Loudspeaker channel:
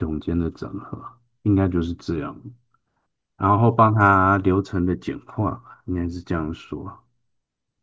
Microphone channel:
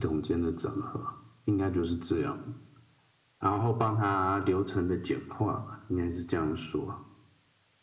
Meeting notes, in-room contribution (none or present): none